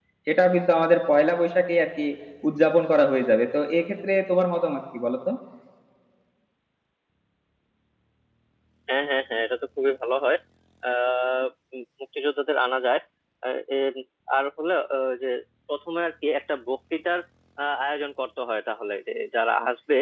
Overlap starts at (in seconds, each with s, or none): none